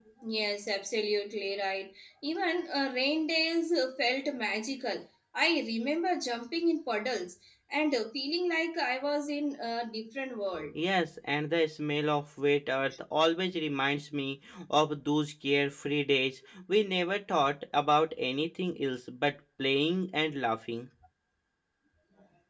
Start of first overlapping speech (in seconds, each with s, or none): none